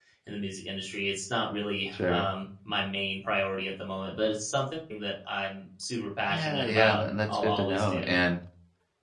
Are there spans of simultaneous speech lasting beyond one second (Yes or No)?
Yes